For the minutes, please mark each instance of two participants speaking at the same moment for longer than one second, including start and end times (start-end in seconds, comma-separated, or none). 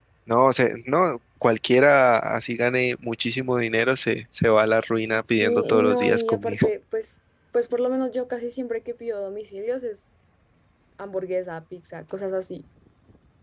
5.3-6.7